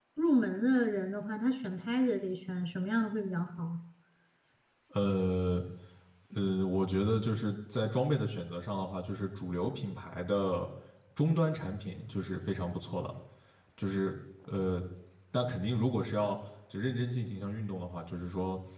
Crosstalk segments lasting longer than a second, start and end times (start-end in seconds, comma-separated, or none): none